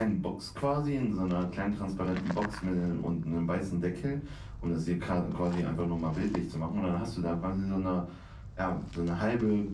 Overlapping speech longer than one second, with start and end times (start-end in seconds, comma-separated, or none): none